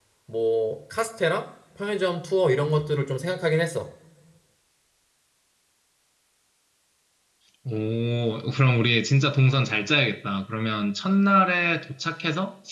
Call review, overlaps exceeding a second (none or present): none